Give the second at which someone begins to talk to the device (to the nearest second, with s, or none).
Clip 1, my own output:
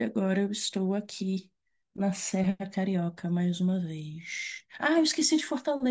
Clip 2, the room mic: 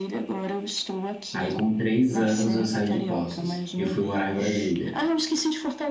1 s